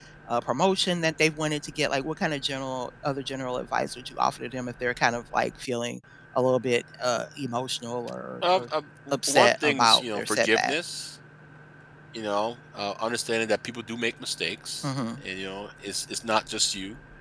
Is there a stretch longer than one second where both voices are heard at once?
Yes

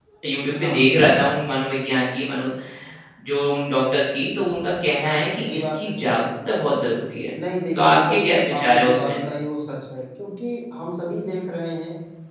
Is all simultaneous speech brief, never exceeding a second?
No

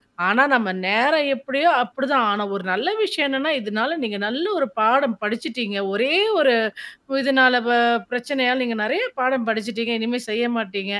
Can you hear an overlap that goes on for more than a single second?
No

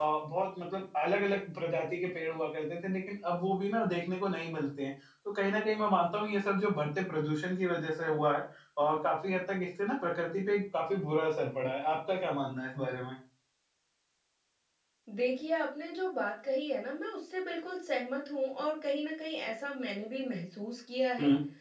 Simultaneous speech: No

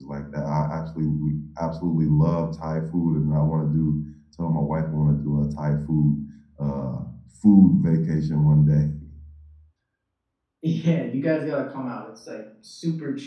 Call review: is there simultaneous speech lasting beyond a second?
No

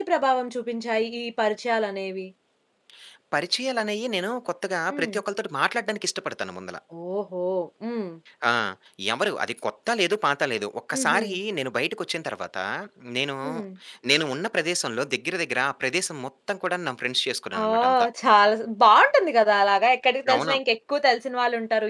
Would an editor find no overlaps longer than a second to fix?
Yes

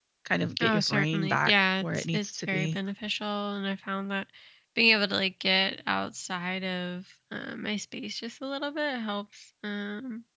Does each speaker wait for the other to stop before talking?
No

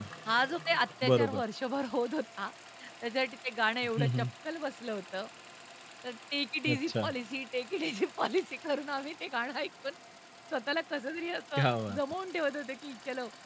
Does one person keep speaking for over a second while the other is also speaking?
No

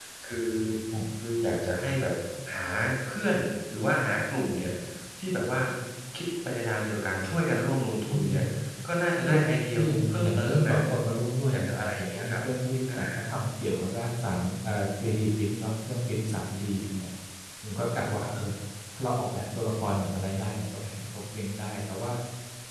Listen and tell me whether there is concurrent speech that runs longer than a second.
Yes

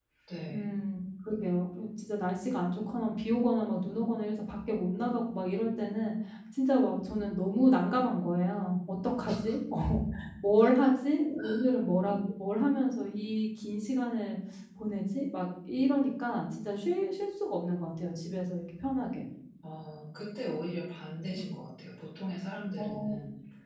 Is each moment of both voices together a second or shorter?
Yes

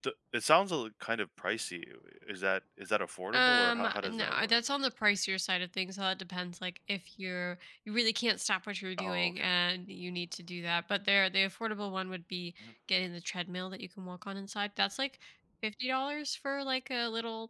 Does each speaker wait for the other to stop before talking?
No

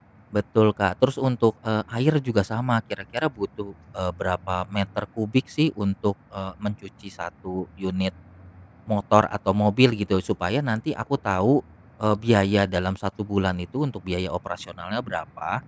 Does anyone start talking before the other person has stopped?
No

